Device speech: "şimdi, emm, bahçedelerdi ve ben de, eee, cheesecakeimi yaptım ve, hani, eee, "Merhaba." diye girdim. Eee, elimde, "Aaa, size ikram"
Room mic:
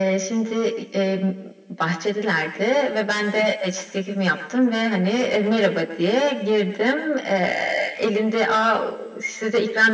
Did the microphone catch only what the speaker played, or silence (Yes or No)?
Yes